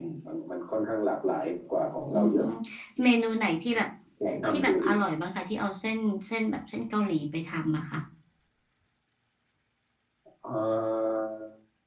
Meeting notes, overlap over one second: none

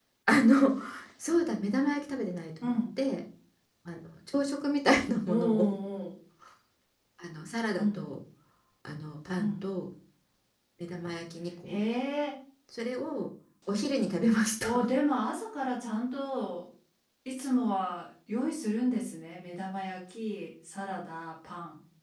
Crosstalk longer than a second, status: none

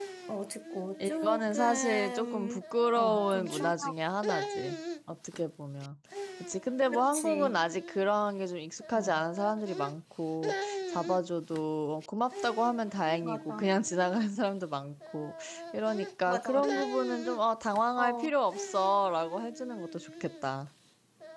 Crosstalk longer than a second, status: present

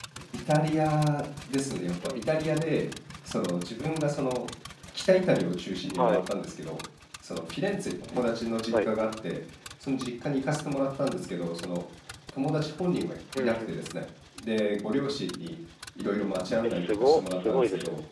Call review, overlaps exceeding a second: present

